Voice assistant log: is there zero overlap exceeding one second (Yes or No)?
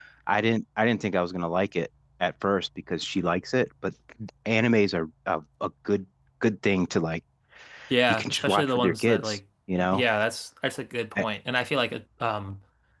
No